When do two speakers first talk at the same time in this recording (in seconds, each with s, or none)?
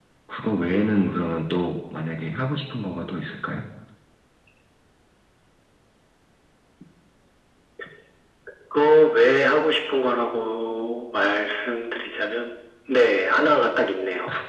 none